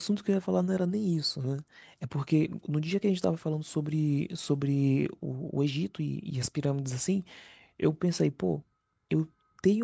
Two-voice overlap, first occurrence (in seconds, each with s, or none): none